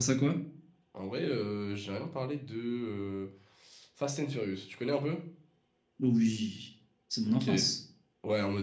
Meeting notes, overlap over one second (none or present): none